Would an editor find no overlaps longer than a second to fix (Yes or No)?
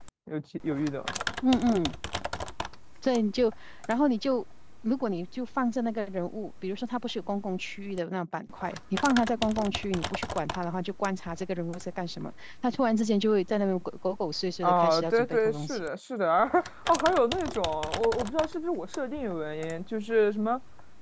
No